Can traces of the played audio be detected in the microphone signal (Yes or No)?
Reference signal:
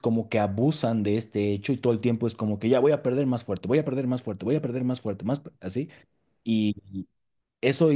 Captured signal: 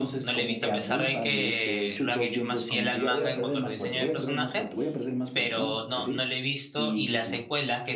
Yes